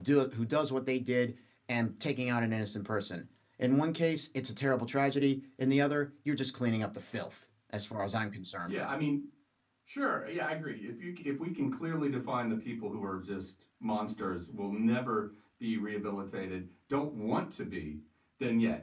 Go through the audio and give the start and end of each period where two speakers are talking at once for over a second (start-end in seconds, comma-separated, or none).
none